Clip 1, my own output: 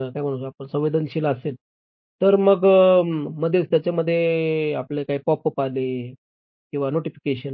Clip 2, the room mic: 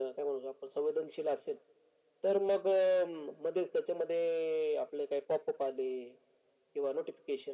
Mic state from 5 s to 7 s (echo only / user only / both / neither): echo only